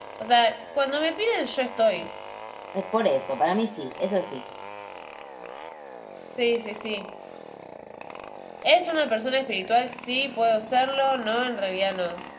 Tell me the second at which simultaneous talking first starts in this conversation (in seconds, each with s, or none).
none